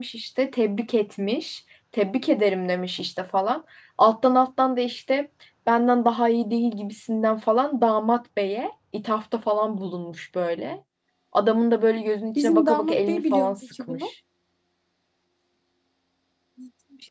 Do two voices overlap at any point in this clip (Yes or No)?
Yes